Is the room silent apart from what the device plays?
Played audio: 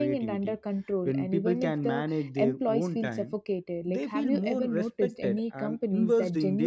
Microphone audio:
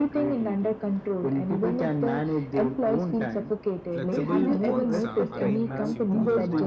No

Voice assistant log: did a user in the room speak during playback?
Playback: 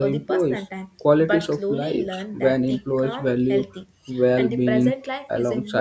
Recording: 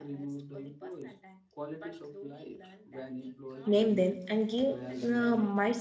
Yes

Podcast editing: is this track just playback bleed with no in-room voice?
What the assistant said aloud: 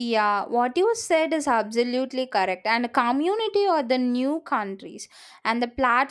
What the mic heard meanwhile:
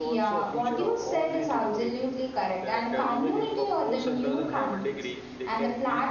No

